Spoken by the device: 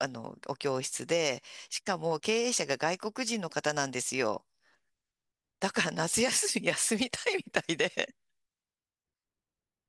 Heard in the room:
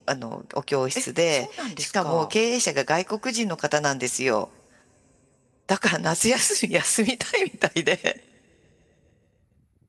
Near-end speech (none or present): present